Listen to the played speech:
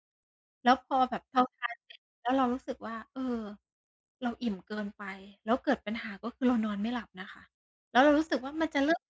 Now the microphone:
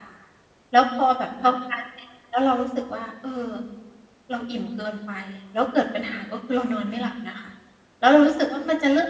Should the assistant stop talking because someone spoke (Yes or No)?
No